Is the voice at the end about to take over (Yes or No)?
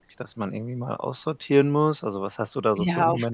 Yes